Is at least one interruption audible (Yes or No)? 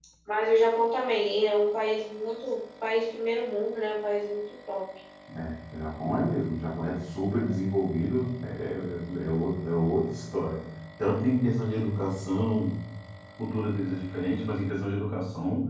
No